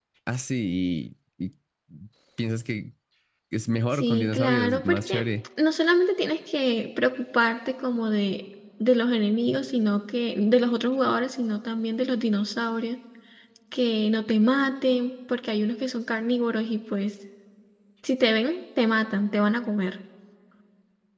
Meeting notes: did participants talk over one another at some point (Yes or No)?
Yes